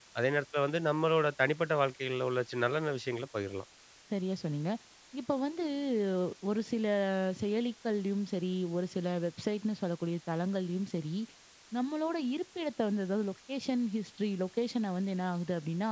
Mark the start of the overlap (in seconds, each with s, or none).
none